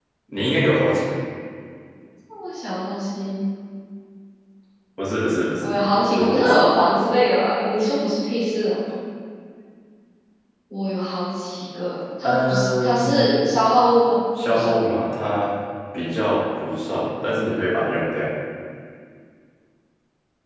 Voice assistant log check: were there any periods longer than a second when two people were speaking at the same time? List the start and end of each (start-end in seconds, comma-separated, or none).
12.2-13.6